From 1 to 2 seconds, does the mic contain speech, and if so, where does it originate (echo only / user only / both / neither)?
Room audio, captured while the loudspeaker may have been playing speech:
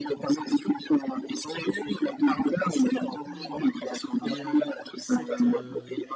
echo only